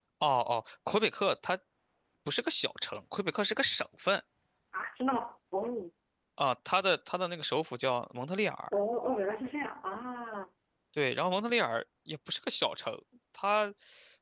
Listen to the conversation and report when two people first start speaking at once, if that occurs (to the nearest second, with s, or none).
none